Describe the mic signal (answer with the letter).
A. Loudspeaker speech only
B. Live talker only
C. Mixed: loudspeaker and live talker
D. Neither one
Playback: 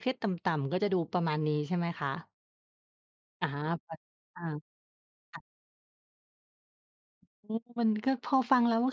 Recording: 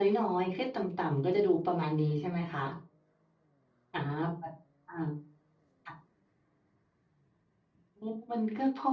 A